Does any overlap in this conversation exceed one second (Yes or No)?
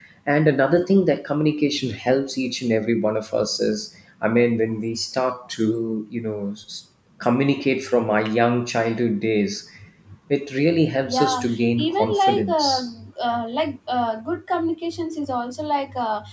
Yes